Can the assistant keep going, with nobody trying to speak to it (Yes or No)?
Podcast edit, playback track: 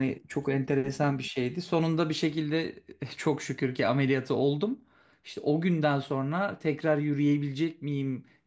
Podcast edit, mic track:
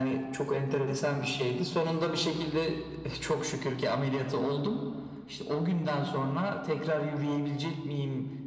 Yes